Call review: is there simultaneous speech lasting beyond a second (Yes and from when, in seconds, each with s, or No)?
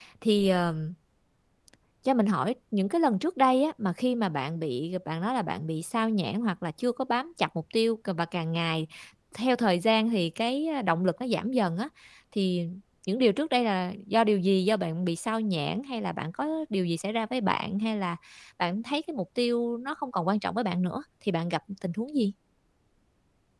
No